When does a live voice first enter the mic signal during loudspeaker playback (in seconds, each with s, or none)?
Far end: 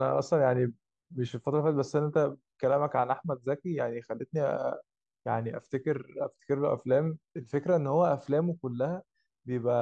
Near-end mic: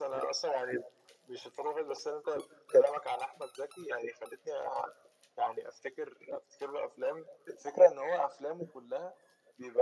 none